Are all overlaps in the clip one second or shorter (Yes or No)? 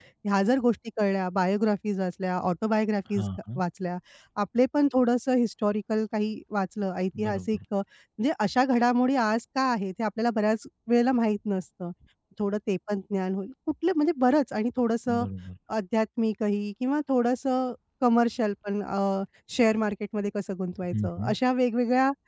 Yes